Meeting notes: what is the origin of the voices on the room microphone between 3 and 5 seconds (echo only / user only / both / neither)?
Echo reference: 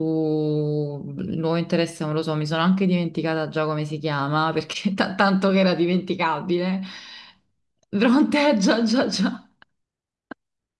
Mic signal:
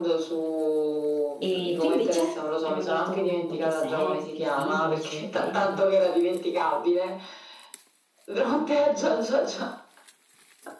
both